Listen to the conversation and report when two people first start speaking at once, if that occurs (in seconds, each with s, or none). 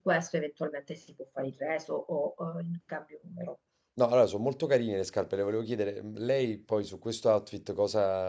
none